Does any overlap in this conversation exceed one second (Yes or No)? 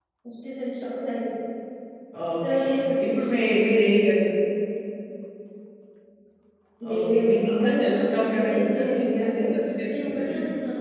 Yes